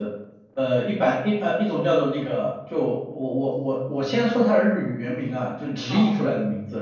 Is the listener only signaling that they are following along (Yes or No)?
Yes